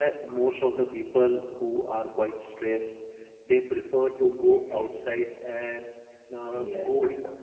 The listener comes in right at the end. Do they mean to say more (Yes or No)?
No